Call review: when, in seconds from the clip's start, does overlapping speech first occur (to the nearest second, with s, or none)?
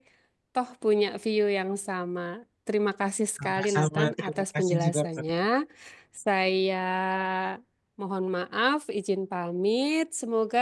3 s